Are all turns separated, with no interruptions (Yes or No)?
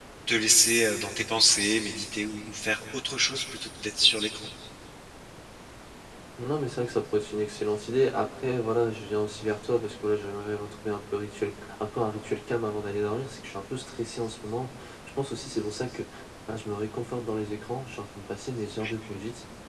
Yes